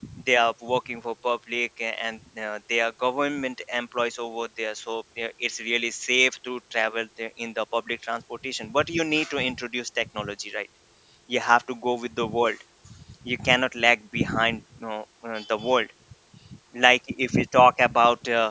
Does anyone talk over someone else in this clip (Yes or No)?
No